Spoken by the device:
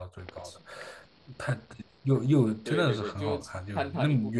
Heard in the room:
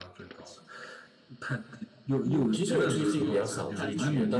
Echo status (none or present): present